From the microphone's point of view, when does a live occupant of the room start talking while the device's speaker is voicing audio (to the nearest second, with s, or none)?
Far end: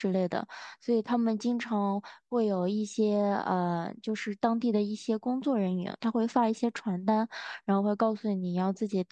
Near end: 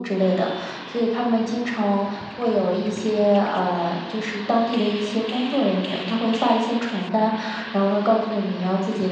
none